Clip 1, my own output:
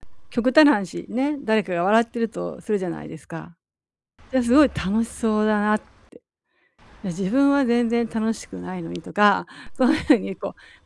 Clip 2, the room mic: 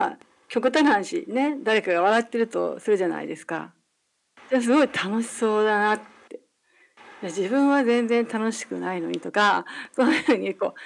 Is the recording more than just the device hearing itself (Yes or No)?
No